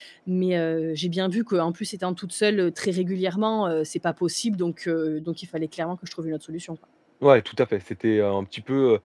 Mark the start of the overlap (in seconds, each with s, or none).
none